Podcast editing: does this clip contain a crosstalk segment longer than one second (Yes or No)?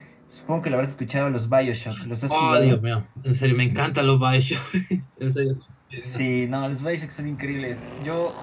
No